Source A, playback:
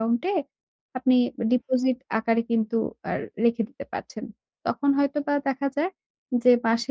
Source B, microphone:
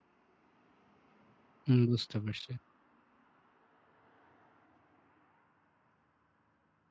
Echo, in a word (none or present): none